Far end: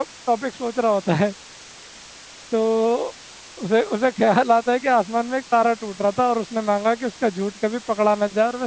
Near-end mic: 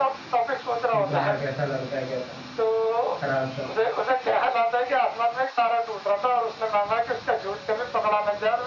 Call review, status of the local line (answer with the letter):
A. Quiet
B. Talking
B